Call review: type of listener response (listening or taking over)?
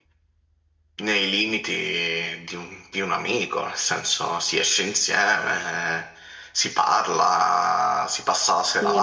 taking over